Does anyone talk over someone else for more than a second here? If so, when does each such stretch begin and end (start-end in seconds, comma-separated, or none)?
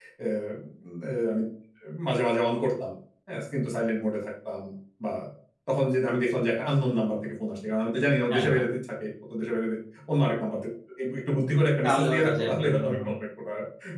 11.8-13.1